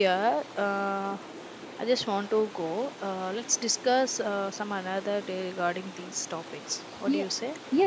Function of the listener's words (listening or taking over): taking over